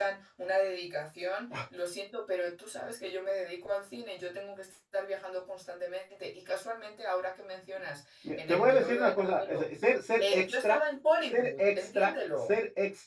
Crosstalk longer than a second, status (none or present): present